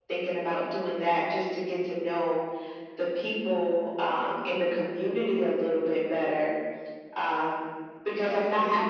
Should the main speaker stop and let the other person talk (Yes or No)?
No